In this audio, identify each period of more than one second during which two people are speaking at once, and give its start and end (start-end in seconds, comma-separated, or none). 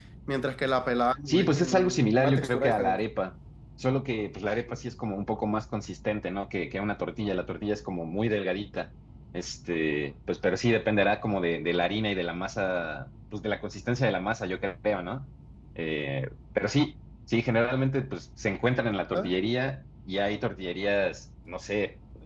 1.3-3.0